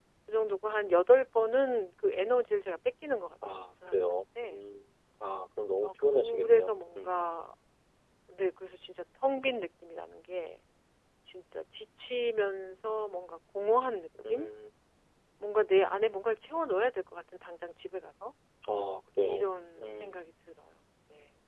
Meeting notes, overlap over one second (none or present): present